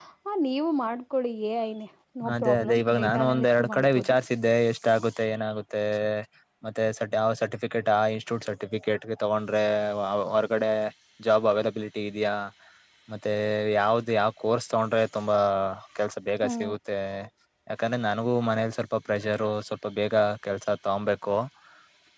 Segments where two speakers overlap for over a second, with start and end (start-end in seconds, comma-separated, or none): 2.4-4.2